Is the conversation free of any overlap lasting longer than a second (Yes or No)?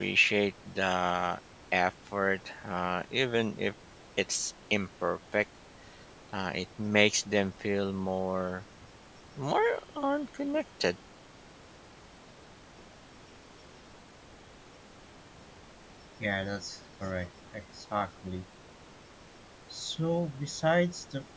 Yes